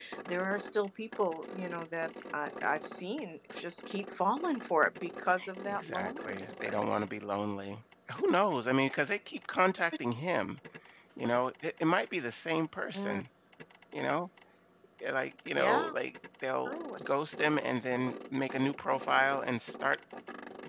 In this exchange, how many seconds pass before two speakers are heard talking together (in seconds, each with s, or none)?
5.6 s